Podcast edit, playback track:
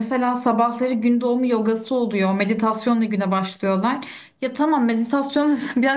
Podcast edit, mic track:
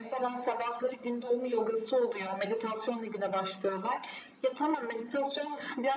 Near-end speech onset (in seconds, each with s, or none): none